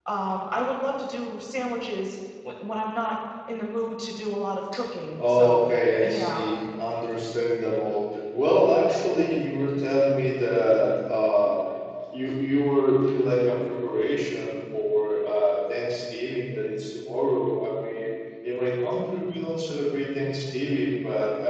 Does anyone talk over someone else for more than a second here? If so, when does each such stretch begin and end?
5.2-6.5

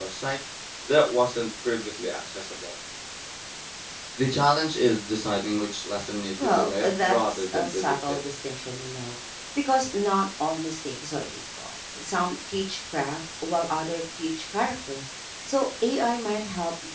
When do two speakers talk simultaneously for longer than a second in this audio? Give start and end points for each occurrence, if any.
6.4-8.2

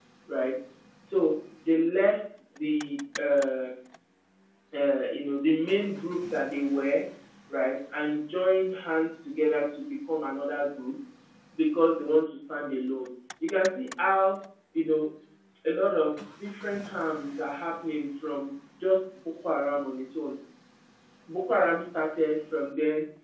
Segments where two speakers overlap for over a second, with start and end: none

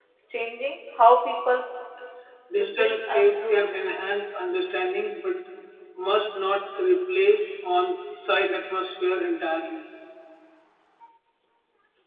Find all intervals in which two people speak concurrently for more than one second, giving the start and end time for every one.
2.6-3.8

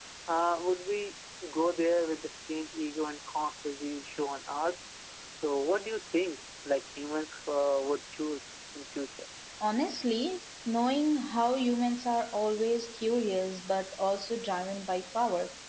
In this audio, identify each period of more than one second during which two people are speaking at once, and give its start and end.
none

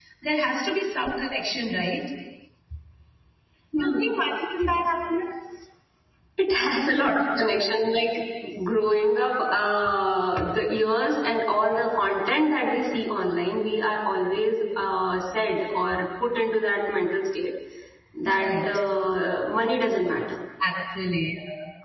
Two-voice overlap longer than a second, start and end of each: none

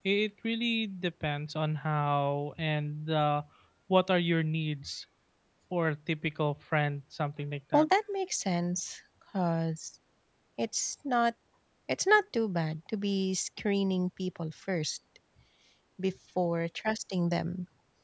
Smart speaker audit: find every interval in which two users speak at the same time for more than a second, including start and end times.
none

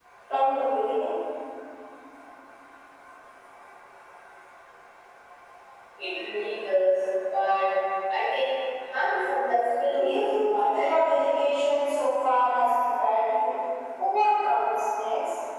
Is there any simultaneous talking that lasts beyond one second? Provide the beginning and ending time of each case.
9.8-11.0

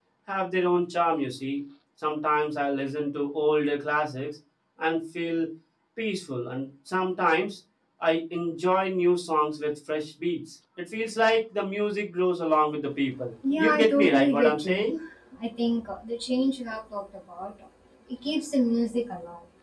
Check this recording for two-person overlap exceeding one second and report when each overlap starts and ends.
13.6-14.9

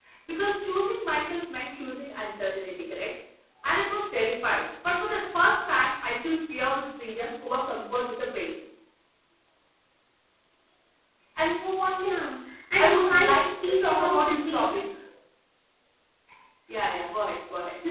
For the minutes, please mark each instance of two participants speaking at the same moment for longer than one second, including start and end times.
12.8-14.7

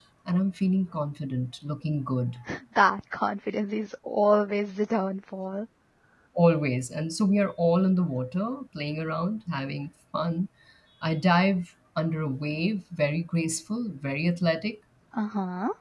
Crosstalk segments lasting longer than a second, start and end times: none

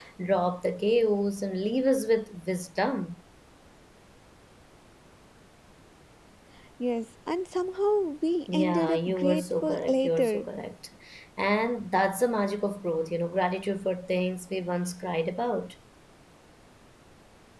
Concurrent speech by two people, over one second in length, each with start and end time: 8.5-10.5

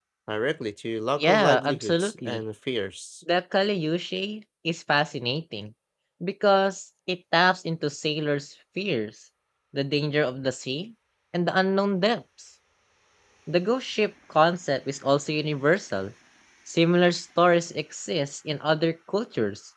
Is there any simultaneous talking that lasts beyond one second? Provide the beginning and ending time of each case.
1.2-2.4

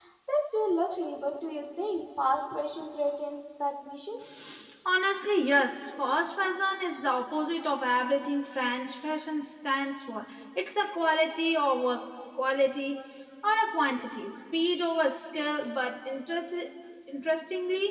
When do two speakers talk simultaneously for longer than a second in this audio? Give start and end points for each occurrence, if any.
none

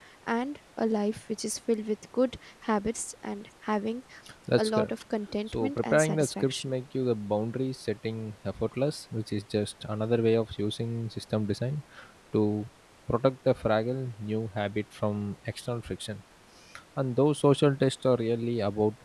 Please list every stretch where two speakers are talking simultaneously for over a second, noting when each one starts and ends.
5.5-6.7

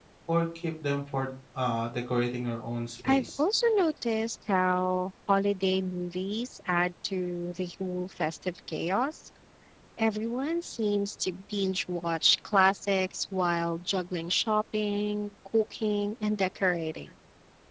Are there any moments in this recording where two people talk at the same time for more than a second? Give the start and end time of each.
none

